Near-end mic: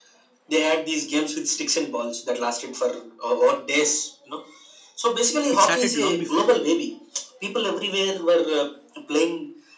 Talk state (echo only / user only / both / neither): both